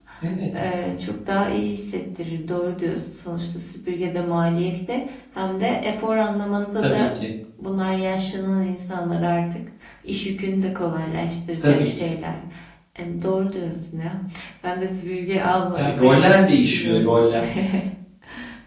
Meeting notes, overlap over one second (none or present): present